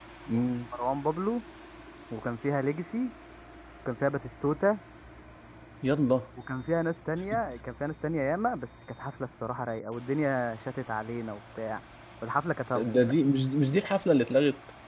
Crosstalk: none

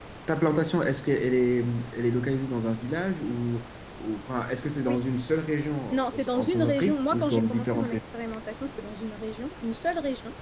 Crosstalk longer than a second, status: present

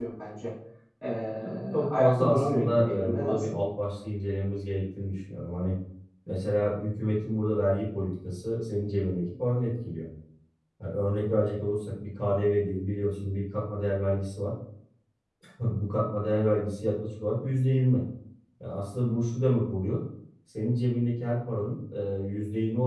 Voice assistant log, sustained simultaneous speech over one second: present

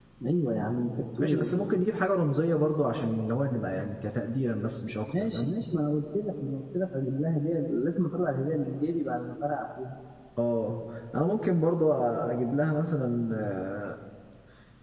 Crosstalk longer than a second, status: none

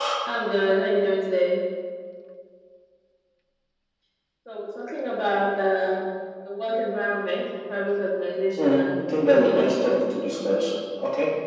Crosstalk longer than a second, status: present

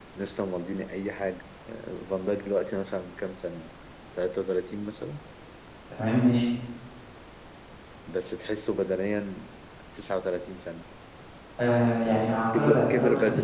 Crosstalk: present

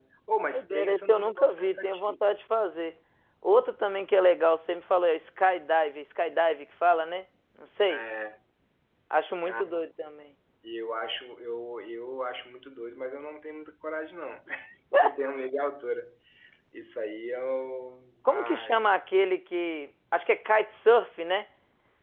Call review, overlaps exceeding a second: present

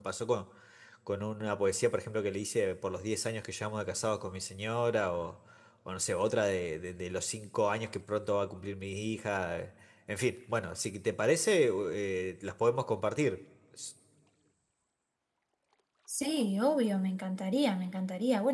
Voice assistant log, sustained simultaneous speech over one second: none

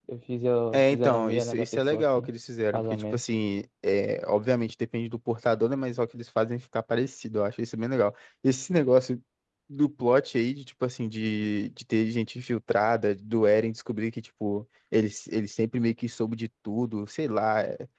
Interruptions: present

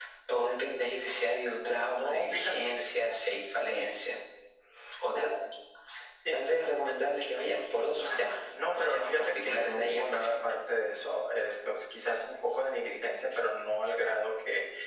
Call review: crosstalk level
present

